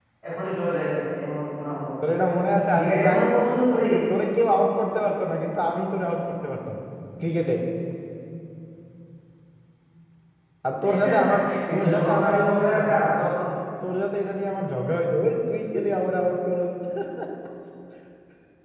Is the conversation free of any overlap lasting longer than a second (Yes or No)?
No